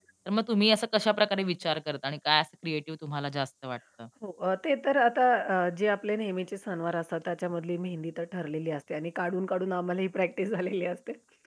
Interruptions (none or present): none